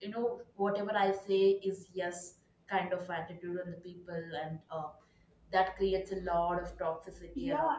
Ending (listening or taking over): taking over